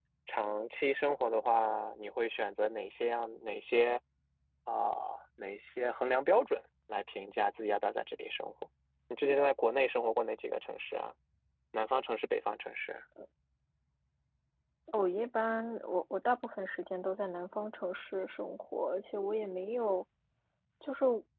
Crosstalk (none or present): none